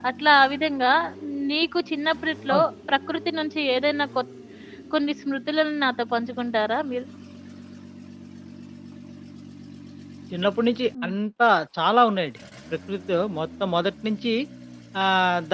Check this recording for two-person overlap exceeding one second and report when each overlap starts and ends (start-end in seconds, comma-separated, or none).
none